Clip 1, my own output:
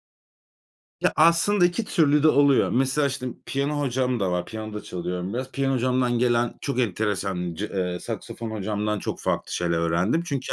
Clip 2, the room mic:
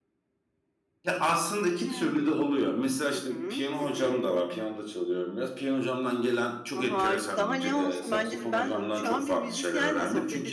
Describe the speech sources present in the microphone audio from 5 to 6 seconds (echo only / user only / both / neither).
echo only